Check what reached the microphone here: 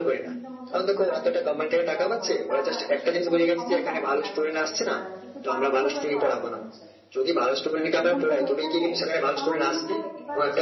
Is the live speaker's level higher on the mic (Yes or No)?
No